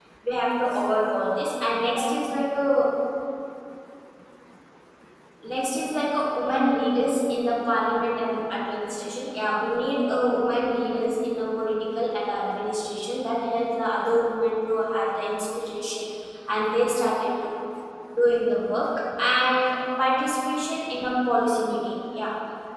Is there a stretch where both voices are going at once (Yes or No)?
No